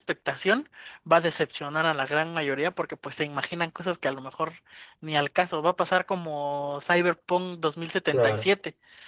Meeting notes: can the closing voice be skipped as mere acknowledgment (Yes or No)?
Yes